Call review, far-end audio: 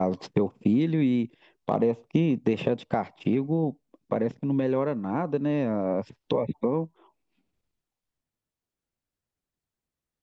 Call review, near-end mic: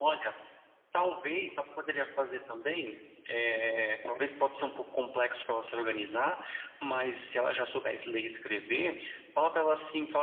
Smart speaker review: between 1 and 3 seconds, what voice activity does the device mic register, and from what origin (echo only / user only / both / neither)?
user only